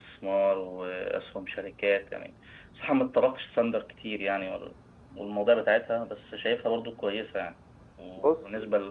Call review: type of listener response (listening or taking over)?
listening